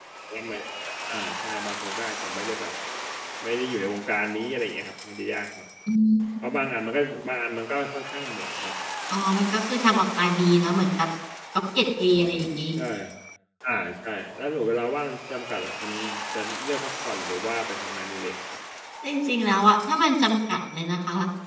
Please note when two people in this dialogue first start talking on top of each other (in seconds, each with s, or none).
none